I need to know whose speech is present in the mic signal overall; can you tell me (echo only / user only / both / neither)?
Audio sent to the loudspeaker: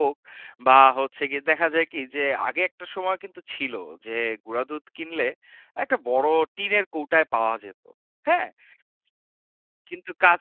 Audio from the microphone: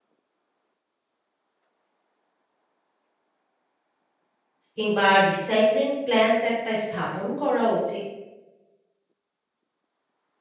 user only